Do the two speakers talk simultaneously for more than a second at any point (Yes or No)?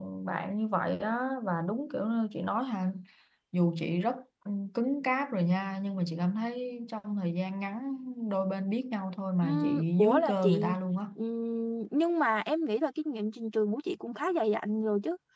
Yes